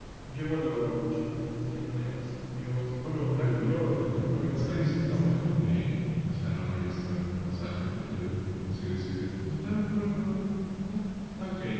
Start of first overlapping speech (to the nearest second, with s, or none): 3 s